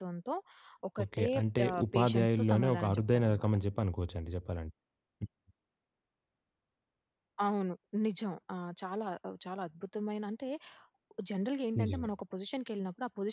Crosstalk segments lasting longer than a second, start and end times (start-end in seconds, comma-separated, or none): 1.7-3.5